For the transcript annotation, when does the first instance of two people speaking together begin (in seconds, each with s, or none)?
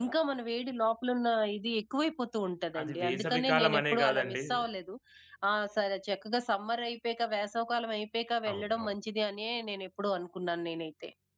2.8 s